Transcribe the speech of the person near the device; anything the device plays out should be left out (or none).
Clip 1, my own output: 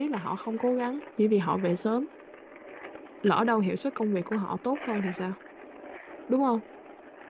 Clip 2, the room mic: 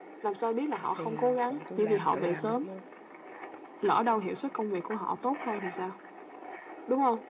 thì bọn tôi làm tự làm được luôn